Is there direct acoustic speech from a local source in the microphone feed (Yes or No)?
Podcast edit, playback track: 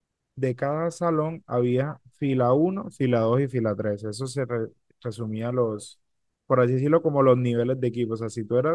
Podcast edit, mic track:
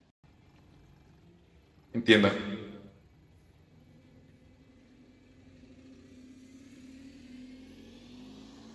Yes